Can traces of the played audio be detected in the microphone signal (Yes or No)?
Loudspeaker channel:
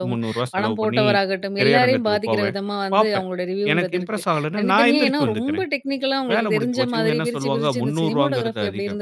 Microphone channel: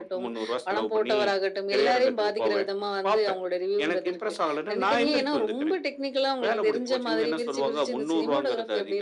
Yes